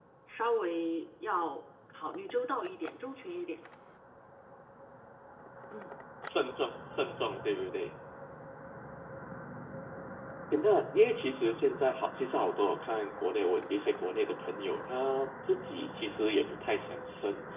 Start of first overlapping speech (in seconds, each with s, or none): none